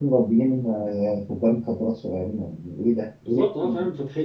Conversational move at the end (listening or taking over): taking over